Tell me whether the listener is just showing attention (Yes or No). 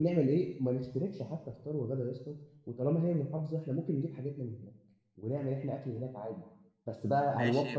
No